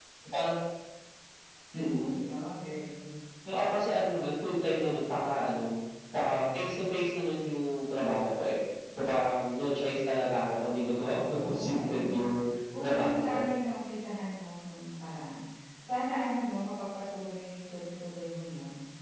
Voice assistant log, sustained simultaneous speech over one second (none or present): present